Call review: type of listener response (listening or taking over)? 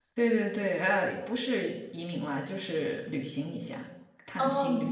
taking over